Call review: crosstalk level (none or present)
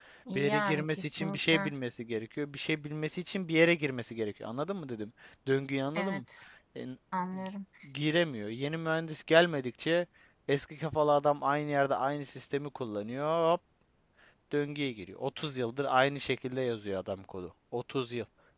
present